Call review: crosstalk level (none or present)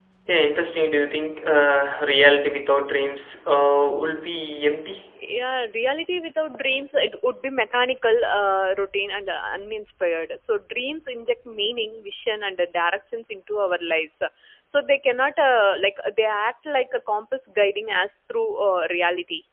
none